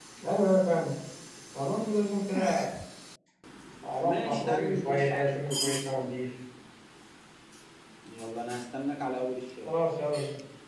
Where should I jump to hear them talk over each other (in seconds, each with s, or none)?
4.0 s